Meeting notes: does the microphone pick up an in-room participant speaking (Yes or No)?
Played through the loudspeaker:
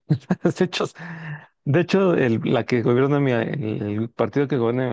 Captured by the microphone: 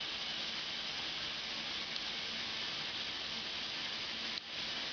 No